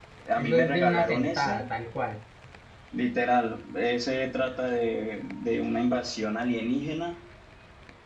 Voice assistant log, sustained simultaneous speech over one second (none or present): present